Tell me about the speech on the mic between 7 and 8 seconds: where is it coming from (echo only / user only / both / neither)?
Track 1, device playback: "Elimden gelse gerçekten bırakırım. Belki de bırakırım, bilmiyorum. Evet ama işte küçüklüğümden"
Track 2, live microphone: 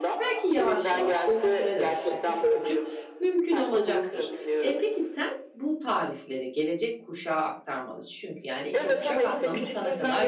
user only